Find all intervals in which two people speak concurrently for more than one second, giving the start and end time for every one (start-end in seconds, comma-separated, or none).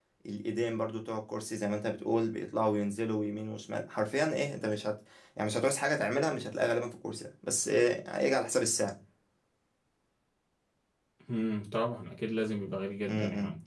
none